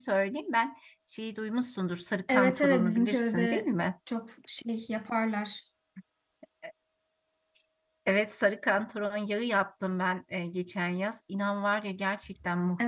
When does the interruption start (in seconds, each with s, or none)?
2.3 s